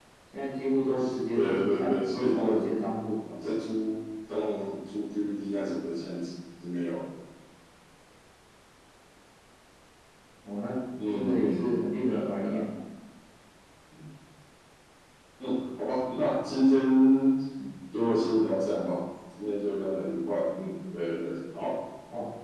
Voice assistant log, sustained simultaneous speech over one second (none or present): present